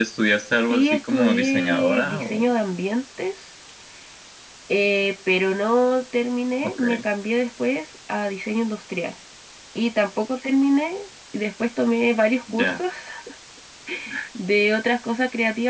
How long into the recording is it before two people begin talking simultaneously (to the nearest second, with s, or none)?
1 s